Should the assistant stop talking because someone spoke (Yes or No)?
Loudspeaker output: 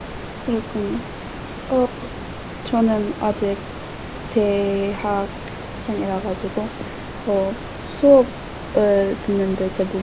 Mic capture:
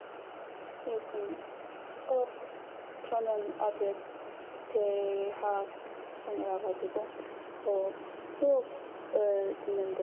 No